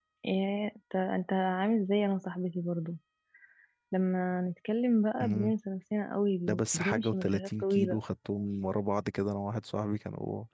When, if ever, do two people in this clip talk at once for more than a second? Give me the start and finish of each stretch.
6.5-8.0

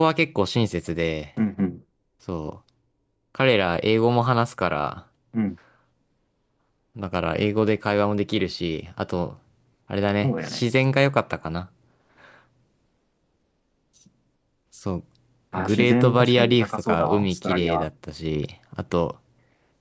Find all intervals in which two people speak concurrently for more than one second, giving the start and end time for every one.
15.6-17.9

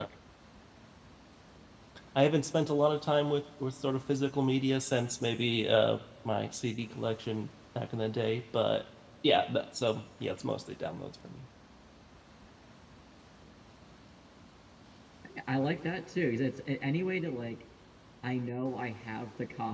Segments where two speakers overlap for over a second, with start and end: none

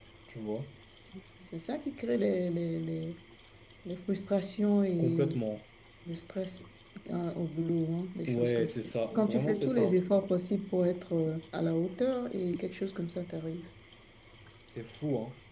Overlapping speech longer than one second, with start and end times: 8.3-10.0

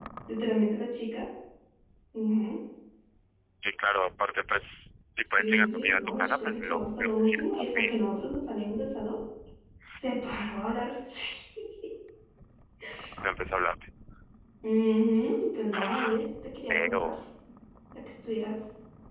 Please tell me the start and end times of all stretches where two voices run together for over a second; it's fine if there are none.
5.3-7.9

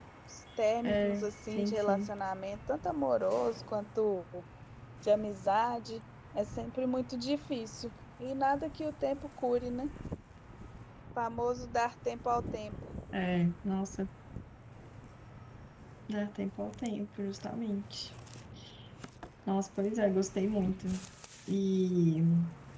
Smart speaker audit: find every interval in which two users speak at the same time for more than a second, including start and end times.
0.8-2.1

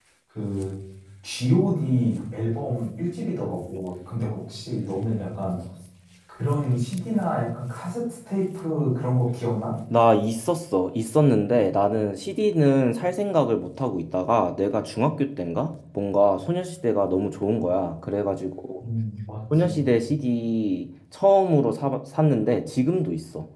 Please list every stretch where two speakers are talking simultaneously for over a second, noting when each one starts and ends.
none

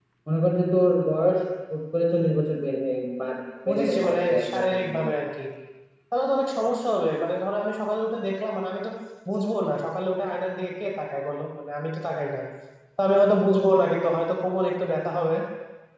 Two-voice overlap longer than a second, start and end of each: 3.7-5.0

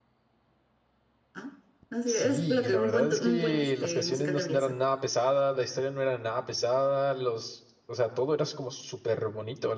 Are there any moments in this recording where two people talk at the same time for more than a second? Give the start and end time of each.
2.1-4.7

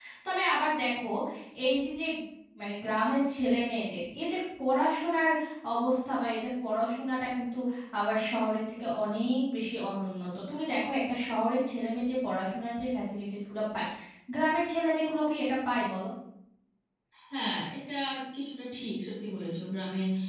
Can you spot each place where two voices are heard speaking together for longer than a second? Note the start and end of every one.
none

